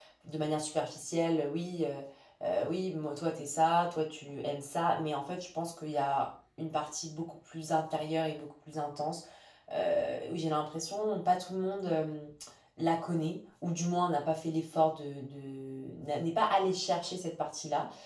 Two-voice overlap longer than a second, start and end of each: none

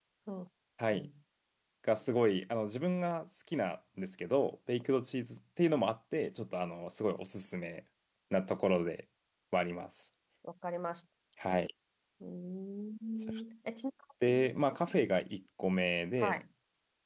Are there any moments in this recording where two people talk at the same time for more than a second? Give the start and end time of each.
none

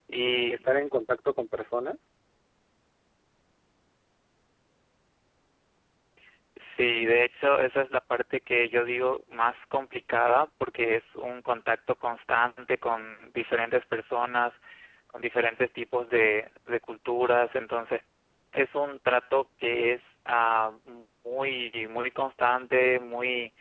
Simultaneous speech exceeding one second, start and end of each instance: none

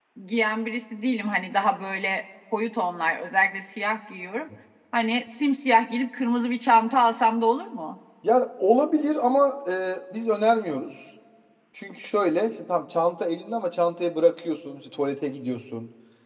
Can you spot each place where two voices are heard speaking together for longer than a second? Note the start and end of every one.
none

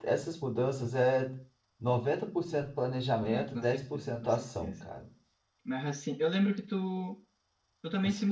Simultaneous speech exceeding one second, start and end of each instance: 3.3-4.9

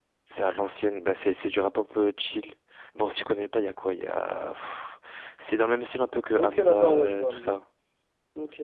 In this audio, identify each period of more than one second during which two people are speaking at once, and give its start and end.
6.4-7.6

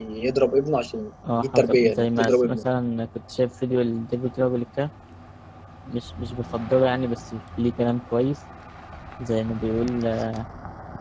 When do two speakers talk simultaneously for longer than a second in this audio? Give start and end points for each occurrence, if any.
1.4-2.6

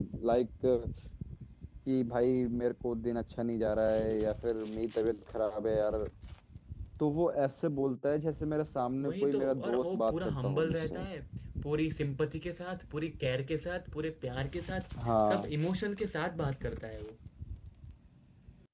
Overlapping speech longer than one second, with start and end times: 9.0-11.0

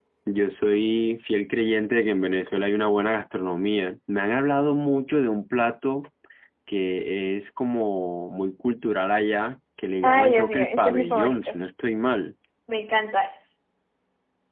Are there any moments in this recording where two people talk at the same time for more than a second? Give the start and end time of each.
10.0-11.6

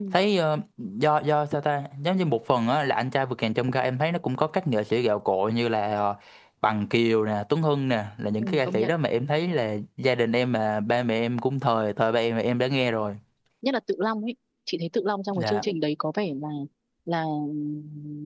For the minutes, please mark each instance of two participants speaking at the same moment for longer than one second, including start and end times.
none

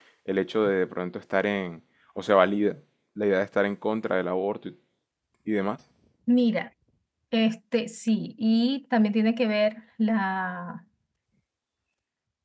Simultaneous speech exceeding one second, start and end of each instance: none

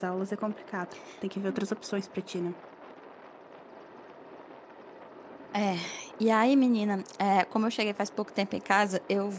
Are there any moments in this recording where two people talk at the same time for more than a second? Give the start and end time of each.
none

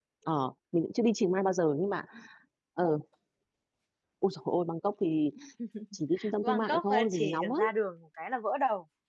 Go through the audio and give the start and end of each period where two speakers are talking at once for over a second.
6.4-7.6

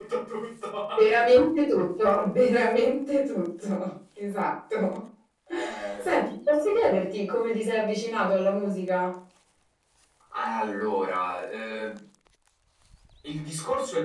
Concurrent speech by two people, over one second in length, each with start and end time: none

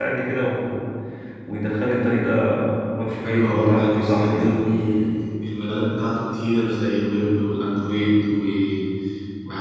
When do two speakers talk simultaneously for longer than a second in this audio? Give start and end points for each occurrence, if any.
3.3-4.6

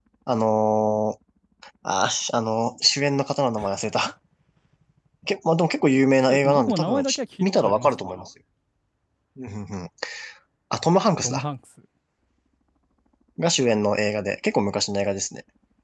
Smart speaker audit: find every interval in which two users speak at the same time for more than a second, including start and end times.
6.3-7.9

